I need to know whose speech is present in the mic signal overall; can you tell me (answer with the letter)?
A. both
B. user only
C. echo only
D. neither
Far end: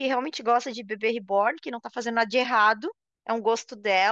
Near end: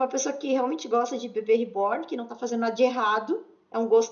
C